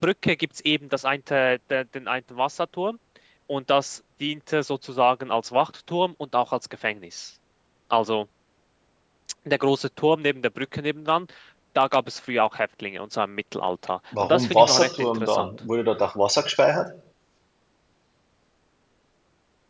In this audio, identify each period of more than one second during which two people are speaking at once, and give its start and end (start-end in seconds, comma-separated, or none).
14.2-15.5